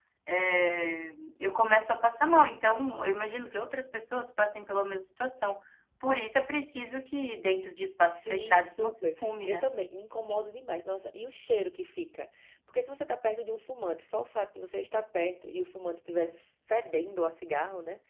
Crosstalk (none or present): present